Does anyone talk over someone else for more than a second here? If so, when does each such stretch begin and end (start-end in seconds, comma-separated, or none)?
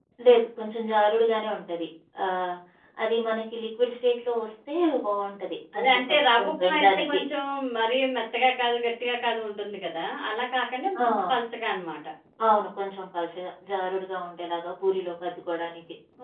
5.8-7.2